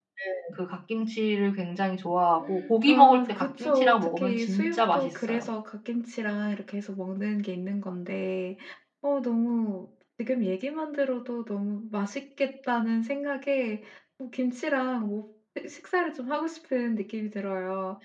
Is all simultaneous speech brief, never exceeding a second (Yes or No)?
No